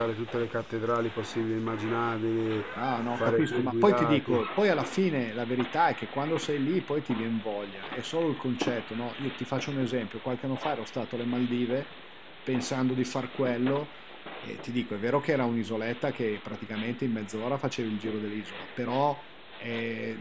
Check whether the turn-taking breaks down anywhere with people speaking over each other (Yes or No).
Yes